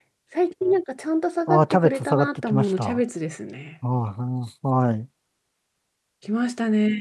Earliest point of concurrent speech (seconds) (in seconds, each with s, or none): 1.5 s